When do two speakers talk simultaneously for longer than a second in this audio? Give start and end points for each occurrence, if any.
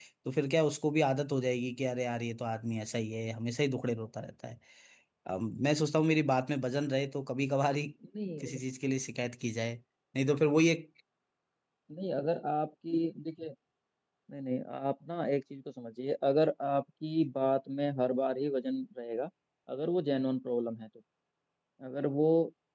none

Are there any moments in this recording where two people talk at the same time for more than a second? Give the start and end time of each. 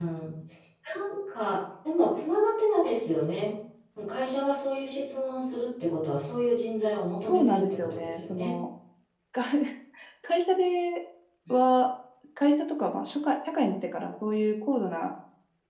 7.2-8.6

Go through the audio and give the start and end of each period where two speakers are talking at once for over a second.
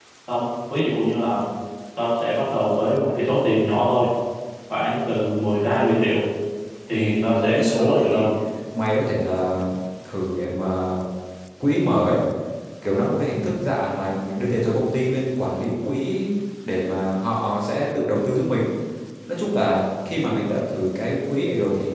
6.9-8.3

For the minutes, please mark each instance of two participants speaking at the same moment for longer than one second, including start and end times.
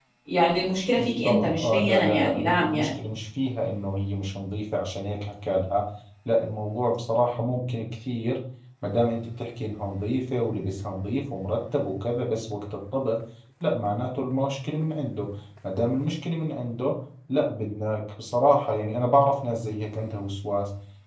1.0-2.9

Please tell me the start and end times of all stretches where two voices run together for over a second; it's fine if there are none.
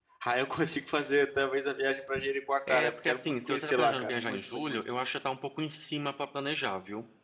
2.7-4.8

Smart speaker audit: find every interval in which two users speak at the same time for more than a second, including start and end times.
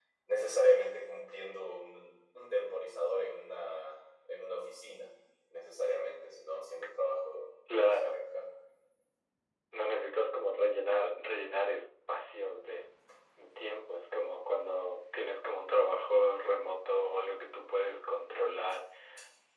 none

